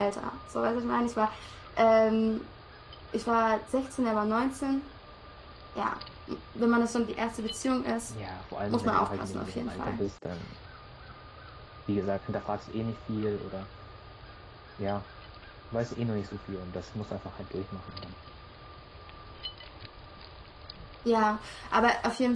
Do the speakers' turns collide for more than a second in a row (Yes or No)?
Yes